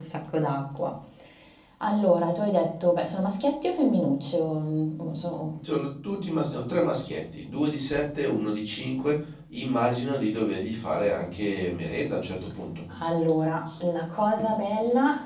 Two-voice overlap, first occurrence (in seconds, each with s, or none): none